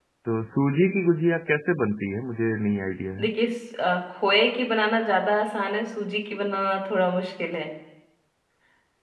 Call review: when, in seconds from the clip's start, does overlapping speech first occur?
none

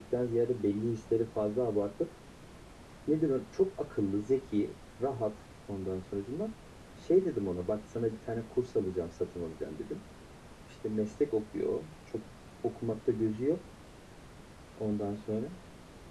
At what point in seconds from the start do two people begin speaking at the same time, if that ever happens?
none

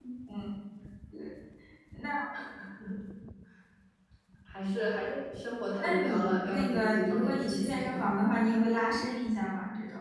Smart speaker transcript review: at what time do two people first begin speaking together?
5.8 s

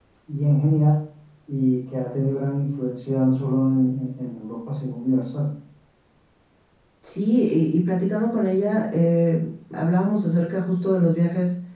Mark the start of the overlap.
none

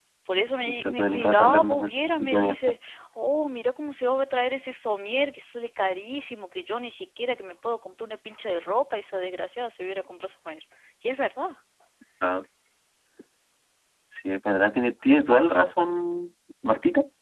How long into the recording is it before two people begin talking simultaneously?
0.6 s

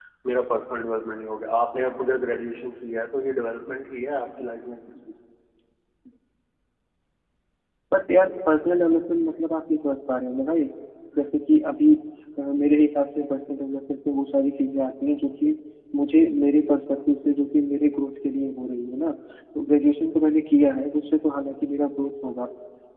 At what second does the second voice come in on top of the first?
none

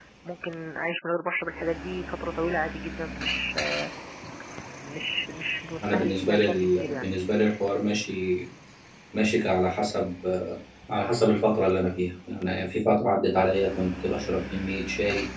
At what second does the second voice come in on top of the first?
5.8 s

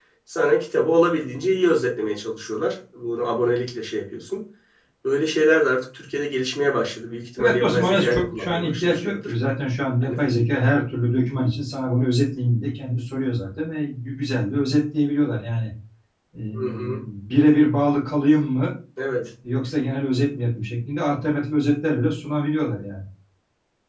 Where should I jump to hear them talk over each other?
7.4 s

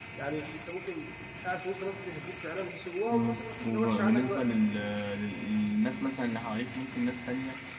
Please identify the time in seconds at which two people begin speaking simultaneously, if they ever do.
3.1 s

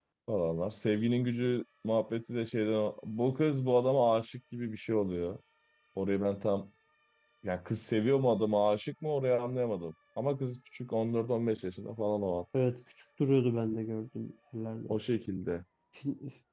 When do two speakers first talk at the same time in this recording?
none

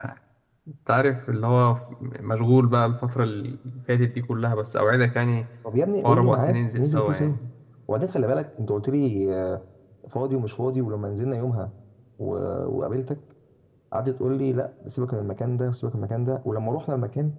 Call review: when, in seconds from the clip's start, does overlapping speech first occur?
6.0 s

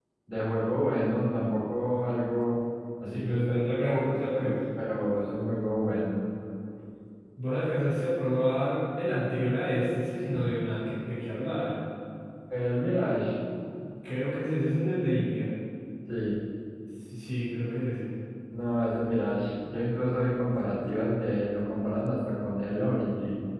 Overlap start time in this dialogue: 3.1 s

